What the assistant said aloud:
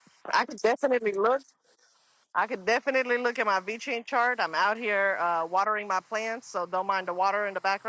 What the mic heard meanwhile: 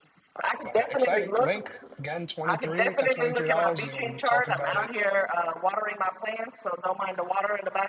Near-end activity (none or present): present